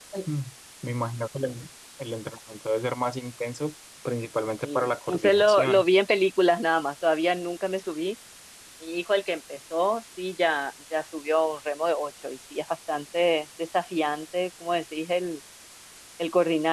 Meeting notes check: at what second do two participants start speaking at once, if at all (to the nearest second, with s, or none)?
5 s